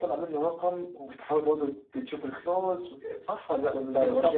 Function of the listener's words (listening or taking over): taking over